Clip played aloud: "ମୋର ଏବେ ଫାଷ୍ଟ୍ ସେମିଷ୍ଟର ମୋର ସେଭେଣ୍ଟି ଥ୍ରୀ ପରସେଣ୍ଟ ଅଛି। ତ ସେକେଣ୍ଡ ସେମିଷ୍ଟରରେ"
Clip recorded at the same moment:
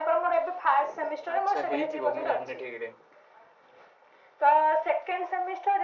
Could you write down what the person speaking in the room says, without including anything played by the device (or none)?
ଆଚ୍ଛା ହେଇଥିବ ମୁଁ ଜାଣିନେଇଁ ଠିକ୍ ରେ।